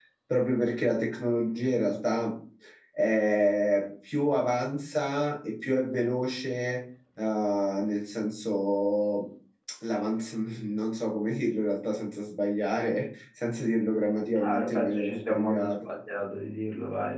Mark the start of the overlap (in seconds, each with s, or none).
14.4 s